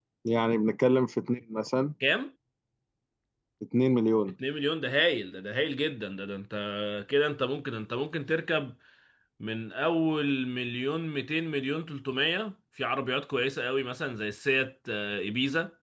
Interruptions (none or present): none